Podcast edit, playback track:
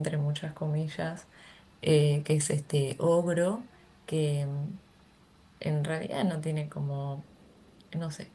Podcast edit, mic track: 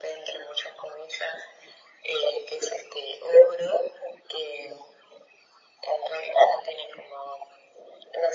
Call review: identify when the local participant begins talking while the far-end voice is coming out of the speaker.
none

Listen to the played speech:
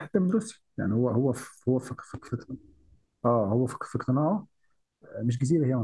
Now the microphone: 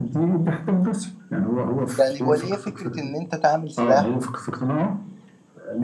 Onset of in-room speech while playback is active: 2.0 s

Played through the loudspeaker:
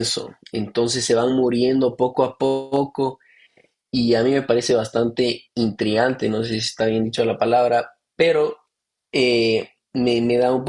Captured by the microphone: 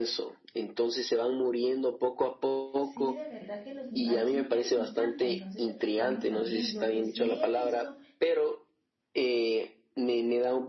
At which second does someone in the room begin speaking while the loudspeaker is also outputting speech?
2.8 s

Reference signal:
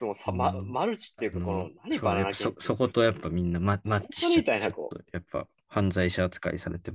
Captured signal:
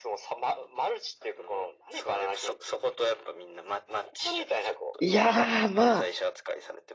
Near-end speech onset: 5.0 s

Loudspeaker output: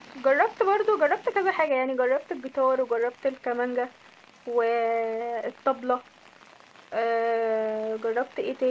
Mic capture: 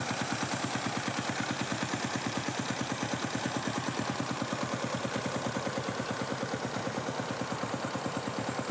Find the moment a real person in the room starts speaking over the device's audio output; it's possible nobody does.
none

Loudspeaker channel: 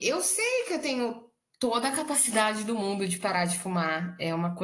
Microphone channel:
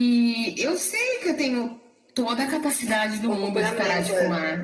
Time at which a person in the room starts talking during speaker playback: 3.3 s

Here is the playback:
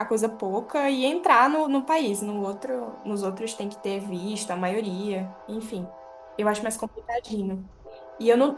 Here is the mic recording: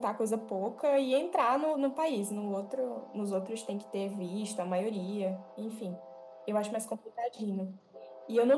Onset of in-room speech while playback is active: none

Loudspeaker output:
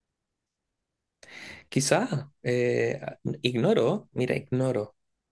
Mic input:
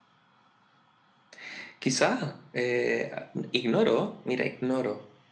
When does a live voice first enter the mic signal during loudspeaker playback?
none

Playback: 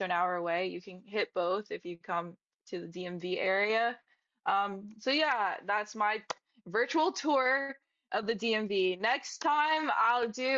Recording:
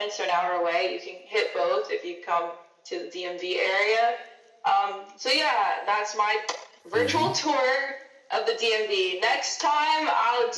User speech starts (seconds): 6.9 s

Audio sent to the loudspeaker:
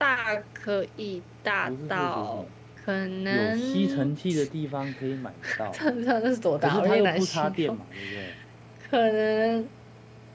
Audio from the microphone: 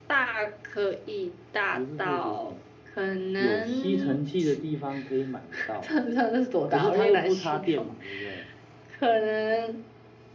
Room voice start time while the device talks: none

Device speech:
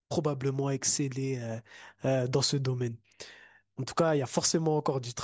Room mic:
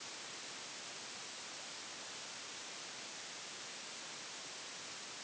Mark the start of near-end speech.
none

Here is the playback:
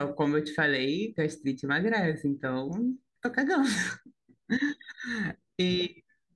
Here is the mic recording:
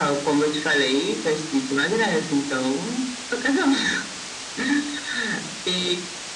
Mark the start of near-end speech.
none

